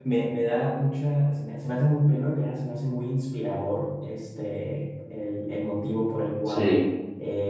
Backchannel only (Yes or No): Yes